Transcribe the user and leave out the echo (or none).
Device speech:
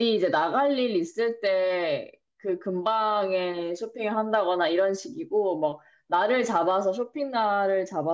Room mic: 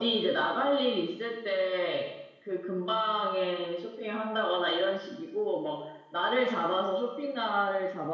none